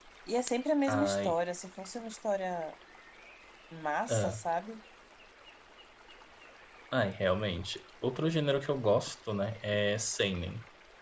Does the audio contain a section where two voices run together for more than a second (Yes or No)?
No